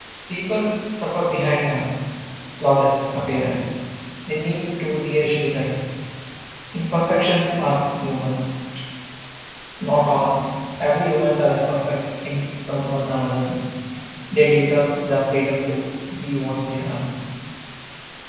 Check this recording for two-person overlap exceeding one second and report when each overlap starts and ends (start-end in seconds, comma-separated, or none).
none